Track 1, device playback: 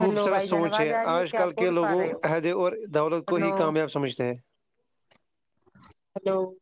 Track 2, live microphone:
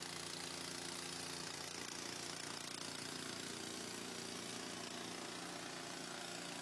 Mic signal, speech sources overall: neither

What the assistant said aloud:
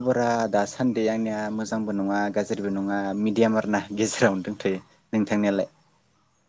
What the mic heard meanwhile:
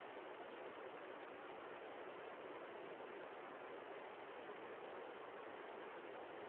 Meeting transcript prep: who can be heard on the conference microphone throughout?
neither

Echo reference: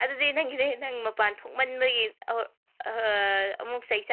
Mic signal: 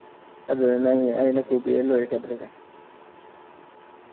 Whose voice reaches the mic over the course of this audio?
user only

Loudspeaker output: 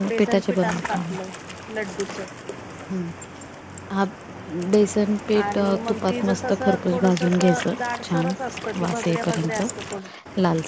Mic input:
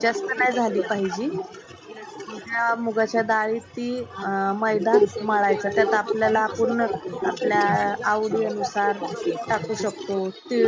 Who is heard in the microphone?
both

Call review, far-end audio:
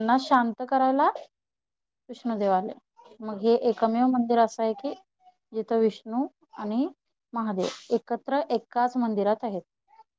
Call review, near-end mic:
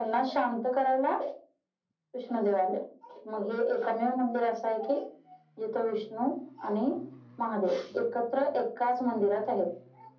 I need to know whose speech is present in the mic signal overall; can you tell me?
echo only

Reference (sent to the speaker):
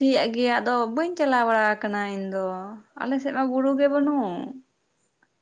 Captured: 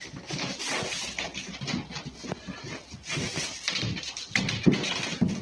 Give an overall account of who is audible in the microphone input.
neither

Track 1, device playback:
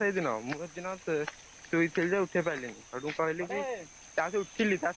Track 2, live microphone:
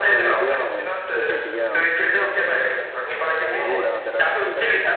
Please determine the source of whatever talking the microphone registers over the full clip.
both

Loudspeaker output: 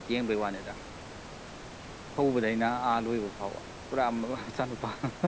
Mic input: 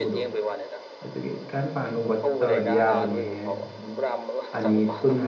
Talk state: both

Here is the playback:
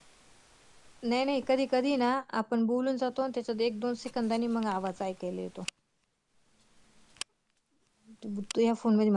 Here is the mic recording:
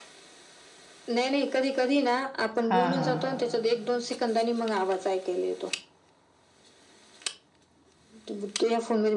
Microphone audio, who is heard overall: both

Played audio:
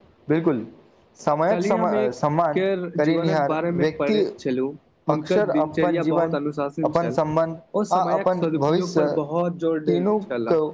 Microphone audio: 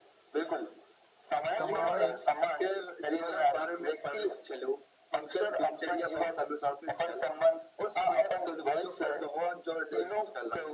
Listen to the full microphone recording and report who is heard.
both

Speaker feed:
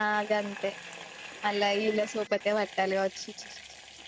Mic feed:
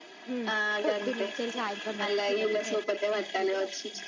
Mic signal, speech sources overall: both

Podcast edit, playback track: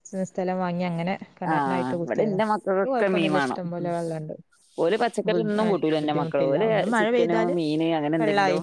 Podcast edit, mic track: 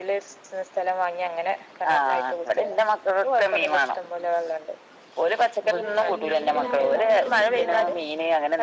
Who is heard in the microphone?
both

